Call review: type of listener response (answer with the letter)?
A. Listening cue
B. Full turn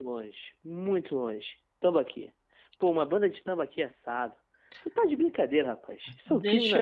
B